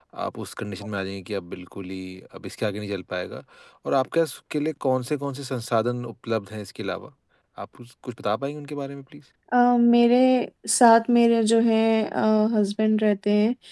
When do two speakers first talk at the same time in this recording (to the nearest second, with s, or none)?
none